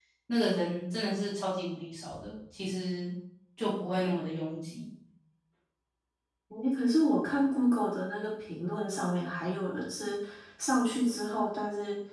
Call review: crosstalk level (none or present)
none